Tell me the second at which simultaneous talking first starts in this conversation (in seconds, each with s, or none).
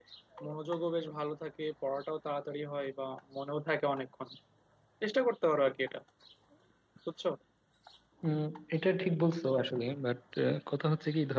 none